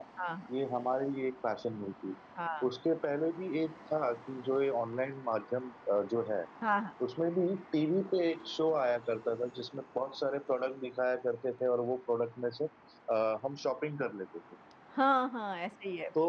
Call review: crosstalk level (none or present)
none